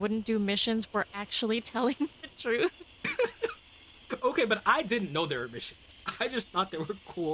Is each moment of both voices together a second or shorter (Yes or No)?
Yes